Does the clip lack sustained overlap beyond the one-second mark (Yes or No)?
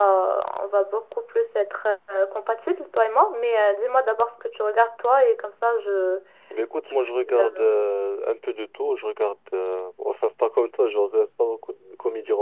Yes